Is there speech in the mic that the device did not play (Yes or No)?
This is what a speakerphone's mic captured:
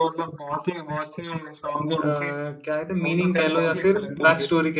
Yes